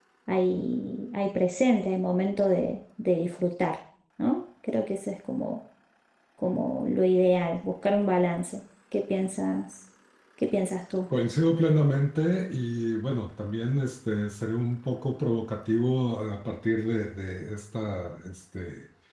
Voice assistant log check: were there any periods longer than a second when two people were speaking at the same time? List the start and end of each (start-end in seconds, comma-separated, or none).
none